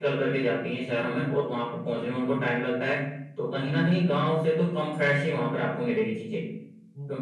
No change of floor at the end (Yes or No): No